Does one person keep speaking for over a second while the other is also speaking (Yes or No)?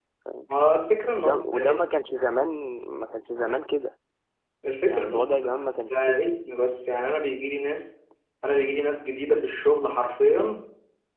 Yes